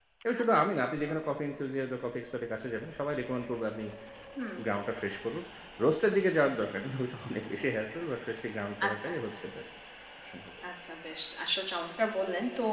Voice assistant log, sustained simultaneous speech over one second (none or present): none